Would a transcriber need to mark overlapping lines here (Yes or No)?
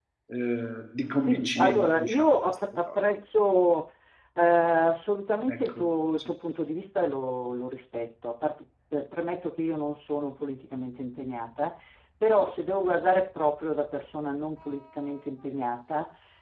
Yes